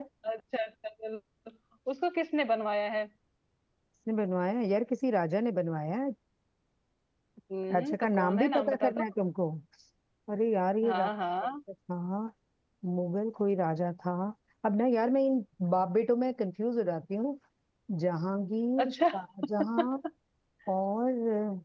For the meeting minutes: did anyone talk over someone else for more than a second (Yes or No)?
Yes